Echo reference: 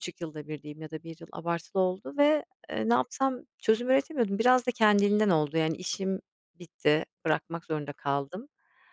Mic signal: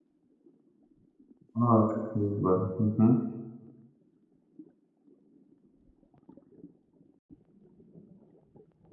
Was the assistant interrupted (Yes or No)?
Yes